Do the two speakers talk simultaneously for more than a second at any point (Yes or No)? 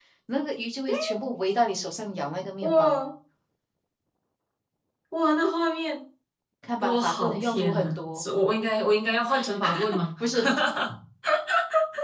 Yes